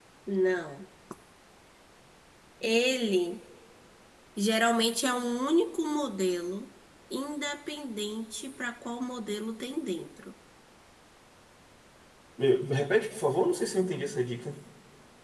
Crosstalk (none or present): none